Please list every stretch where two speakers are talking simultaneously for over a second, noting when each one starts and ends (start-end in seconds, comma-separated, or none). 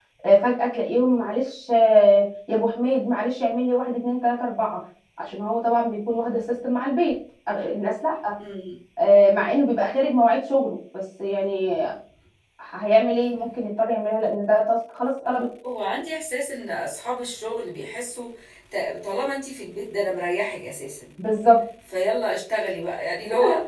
none